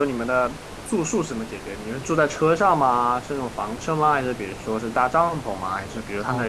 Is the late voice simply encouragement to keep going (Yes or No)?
No